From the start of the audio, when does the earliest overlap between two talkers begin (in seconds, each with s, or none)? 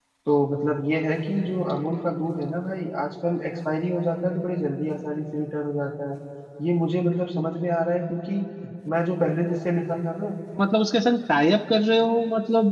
none